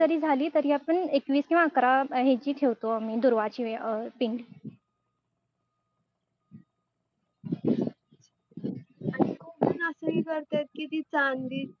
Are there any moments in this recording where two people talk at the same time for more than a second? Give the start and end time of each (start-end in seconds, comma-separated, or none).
none